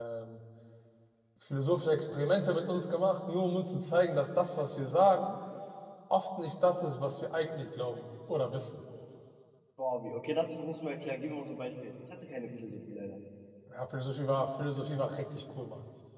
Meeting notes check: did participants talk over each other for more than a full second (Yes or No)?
No